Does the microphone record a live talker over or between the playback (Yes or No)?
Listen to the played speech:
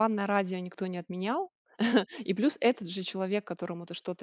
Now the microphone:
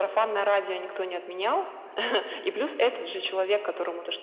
No